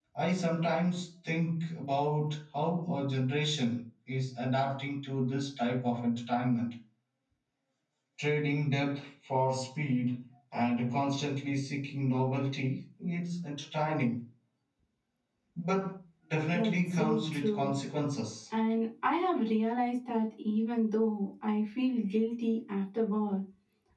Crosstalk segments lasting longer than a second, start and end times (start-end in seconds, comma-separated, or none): 16.5-17.7